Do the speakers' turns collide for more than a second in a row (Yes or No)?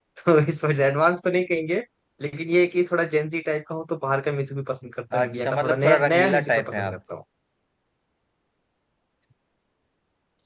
Yes